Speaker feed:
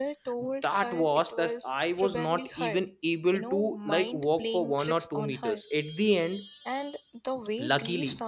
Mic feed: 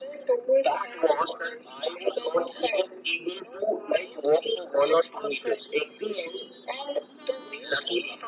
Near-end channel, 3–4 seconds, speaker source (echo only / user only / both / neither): echo only